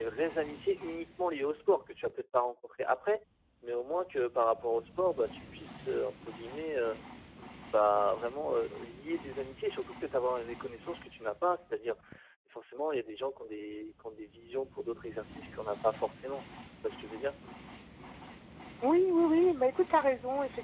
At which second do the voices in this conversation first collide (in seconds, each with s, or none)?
none